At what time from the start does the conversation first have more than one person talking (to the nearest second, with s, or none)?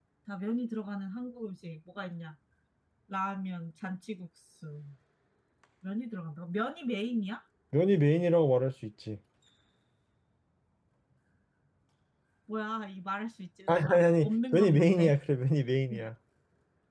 14 s